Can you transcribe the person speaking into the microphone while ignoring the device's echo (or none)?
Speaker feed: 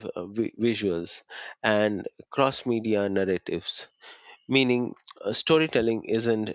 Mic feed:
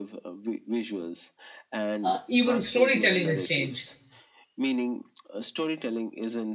Uh, even storytelling has changed.